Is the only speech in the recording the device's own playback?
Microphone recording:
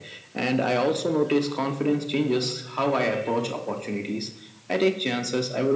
Yes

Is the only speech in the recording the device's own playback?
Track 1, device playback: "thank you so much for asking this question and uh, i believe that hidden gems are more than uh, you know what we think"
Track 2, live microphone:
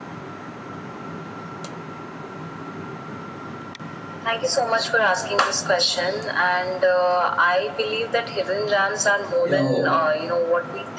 No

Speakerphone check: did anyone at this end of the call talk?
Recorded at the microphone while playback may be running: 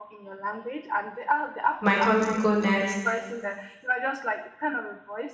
Yes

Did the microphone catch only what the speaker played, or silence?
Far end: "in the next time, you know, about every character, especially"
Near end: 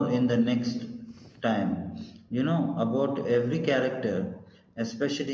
Yes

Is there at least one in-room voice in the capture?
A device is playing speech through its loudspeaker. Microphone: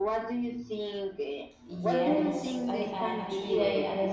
Yes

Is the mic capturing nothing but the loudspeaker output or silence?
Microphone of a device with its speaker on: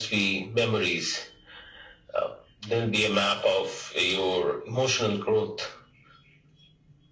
Yes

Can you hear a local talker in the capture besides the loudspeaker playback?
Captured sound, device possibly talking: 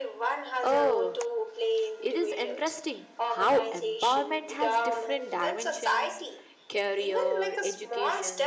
Yes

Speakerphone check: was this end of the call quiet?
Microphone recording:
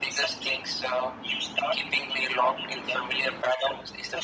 Yes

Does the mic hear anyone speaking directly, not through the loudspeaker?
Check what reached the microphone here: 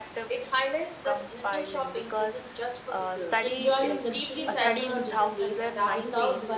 Yes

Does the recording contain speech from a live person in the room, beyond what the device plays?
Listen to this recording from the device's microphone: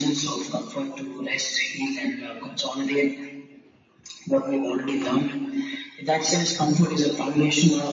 No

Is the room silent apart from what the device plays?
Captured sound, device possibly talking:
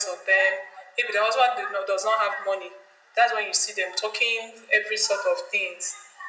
Yes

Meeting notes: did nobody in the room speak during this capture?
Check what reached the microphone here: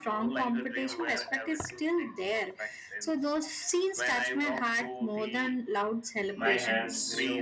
No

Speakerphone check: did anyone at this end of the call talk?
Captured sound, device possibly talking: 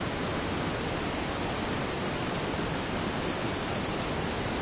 No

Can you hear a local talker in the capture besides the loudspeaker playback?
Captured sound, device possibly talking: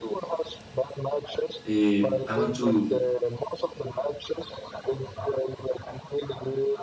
Yes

